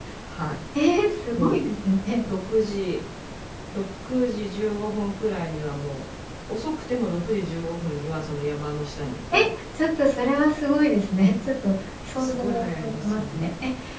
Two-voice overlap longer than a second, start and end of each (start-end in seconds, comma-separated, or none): 12.2-13.4